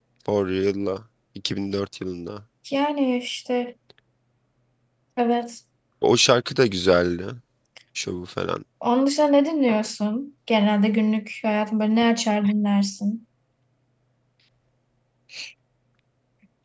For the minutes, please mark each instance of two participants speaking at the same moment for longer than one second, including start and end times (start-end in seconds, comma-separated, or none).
none